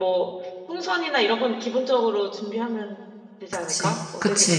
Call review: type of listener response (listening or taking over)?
taking over